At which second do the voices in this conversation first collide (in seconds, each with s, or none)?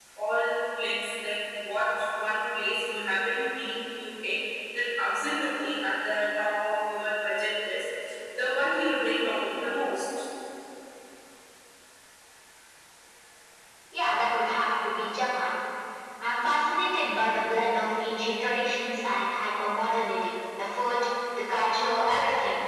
none